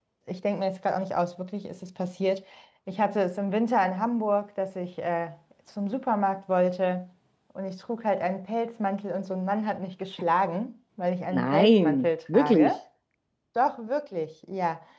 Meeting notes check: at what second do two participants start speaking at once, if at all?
11.3 s

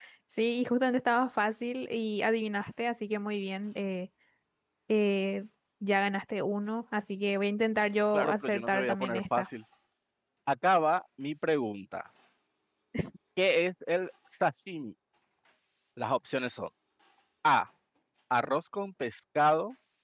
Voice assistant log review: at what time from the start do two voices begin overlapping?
8.1 s

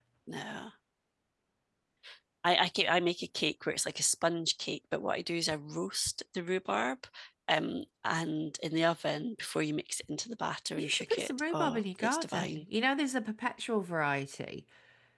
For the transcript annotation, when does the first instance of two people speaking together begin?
10.8 s

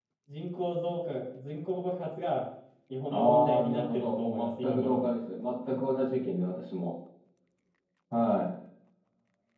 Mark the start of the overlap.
3.1 s

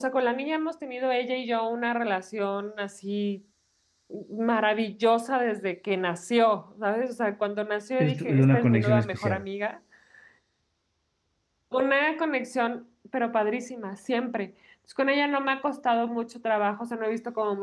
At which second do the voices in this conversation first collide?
8.0 s

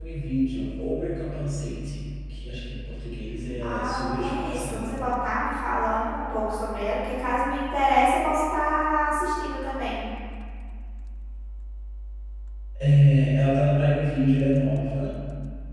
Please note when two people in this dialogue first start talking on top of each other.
3.6 s

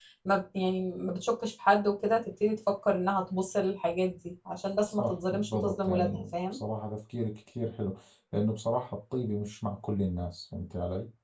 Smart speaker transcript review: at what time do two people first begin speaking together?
4.9 s

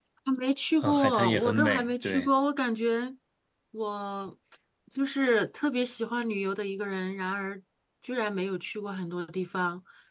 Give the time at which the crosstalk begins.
0.8 s

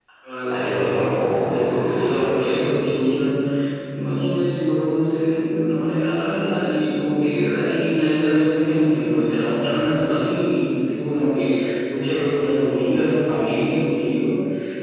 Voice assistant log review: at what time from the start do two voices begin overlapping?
0.5 s

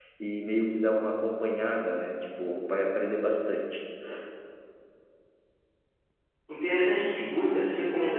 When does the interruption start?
none

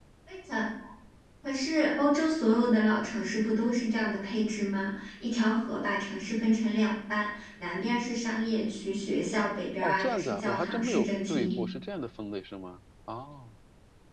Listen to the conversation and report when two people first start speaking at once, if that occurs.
9.8 s

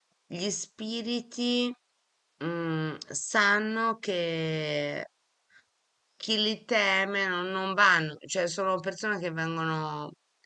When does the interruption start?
none

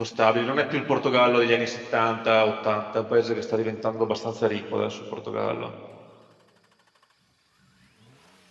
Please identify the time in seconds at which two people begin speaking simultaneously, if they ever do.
none

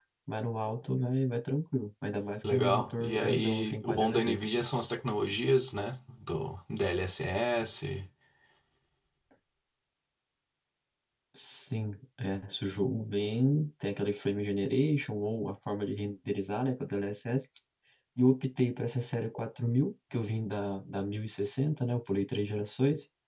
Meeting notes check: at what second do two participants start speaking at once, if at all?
2.4 s

